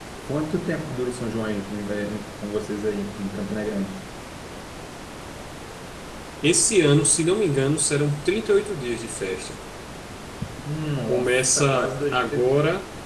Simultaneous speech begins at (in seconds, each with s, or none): 11.1 s